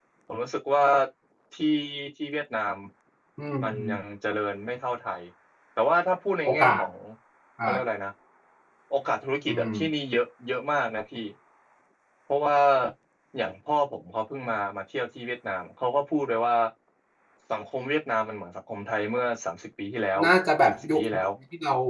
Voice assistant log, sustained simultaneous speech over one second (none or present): none